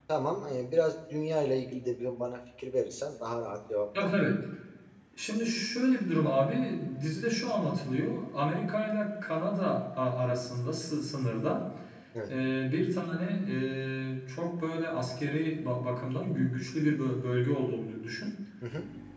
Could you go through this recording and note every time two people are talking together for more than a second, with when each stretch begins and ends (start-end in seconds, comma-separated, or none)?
none